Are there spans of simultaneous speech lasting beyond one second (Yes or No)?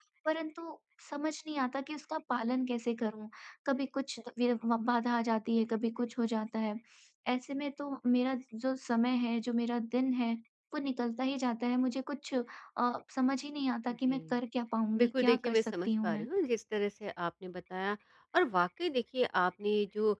Yes